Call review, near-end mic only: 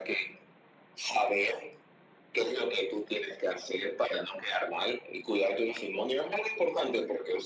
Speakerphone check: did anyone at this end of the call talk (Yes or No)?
No